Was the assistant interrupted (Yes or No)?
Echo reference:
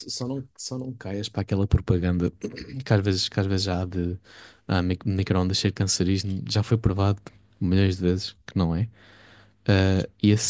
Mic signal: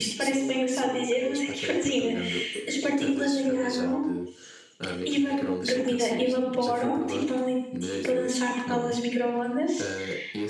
Yes